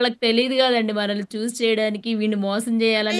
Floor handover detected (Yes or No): No